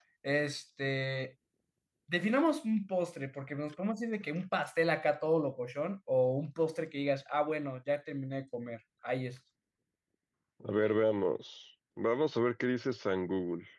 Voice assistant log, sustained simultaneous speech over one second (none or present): none